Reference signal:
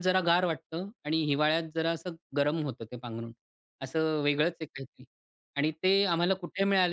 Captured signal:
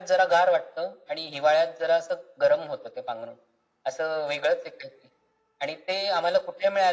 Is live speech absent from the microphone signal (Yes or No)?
Yes